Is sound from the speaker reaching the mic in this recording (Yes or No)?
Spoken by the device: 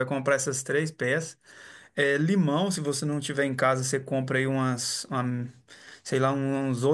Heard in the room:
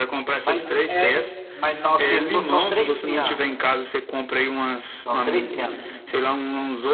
Yes